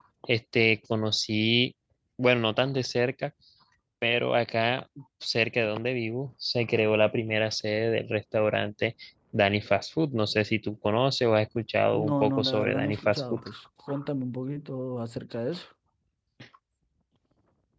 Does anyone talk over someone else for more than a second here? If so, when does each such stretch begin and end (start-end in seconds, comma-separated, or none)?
11.9-13.4